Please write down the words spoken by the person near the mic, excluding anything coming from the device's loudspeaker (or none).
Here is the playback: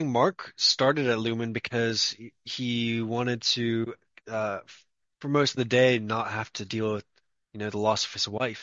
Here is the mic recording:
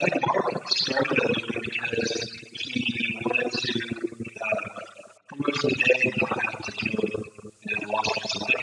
none